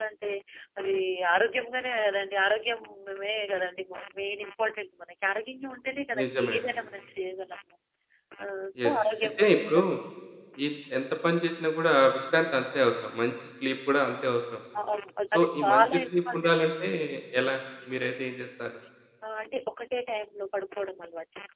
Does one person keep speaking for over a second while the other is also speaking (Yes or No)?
Yes